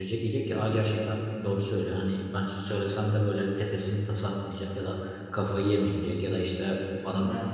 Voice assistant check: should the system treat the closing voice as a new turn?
No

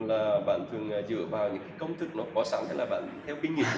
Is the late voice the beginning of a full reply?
Yes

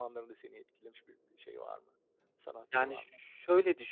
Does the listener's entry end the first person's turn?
Yes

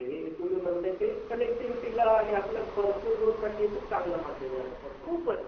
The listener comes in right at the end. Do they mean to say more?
Yes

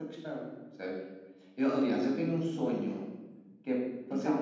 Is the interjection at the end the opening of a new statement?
No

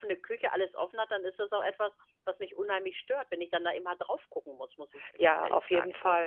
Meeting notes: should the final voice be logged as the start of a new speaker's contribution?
Yes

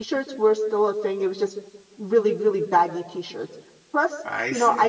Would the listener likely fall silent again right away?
Yes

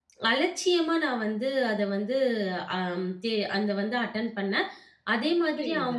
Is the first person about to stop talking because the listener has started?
Yes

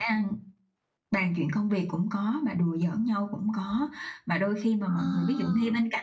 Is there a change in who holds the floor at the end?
No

